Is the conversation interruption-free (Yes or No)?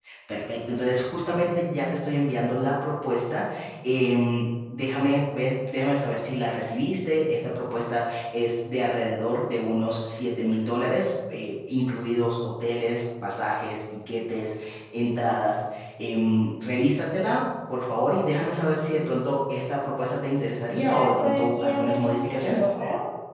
No